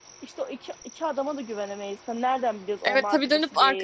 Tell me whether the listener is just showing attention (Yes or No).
No